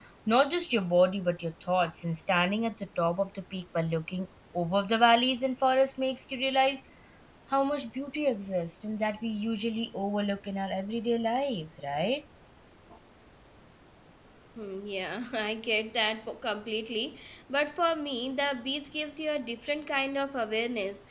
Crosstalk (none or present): none